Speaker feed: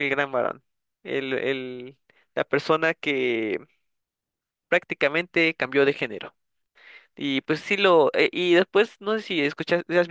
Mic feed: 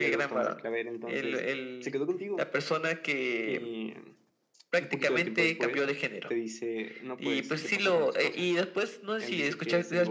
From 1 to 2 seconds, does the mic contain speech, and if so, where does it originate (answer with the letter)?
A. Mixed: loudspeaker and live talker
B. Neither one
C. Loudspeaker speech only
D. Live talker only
A